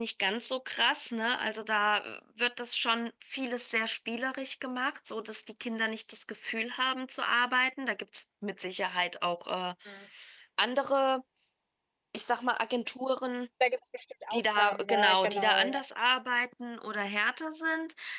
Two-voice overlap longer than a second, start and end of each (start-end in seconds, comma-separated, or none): 14.3-15.8